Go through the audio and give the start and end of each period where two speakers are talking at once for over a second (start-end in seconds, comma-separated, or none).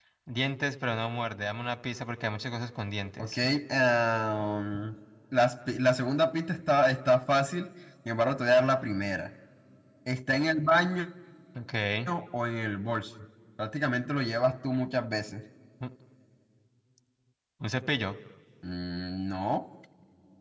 none